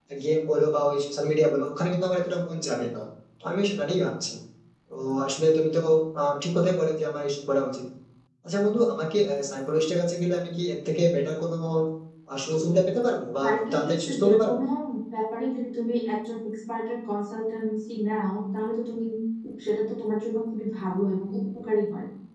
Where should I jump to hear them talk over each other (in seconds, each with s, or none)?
13.4 s